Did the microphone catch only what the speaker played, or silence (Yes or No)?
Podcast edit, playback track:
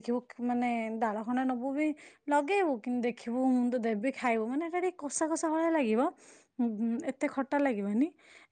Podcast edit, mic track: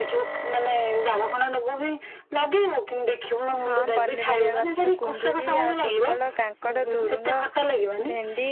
No